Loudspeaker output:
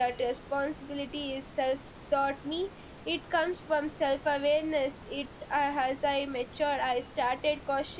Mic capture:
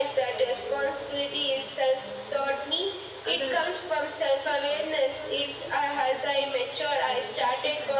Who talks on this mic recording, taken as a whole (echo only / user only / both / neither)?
both